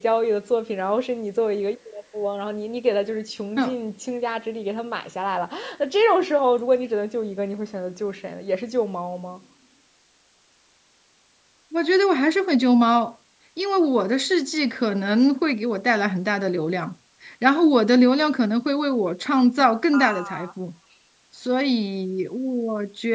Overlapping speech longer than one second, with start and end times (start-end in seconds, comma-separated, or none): none